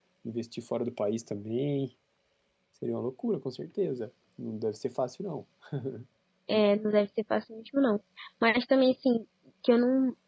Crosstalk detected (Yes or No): No